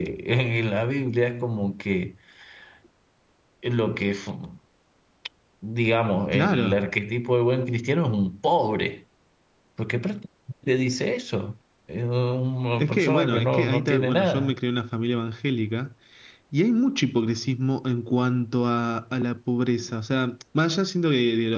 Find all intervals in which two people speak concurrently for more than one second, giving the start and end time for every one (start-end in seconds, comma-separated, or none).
12.8-14.5